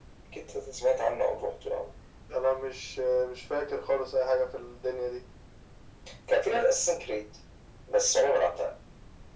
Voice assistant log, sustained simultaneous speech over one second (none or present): none